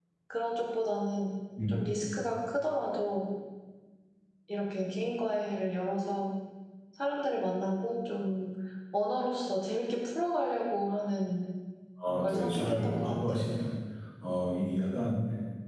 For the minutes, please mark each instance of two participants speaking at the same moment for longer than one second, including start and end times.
12.2-13.5

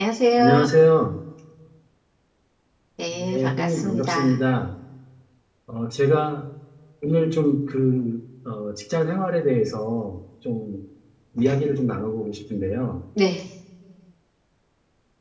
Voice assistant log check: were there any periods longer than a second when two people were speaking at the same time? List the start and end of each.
3.2-4.4

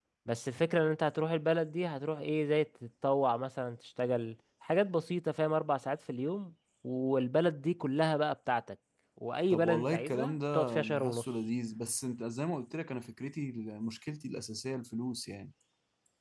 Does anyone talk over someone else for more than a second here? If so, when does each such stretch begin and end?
9.5-11.2

